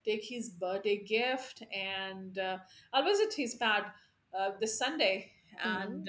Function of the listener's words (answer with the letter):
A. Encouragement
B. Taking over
A